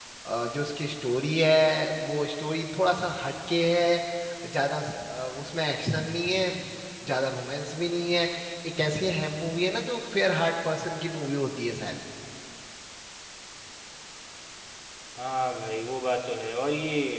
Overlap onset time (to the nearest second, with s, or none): none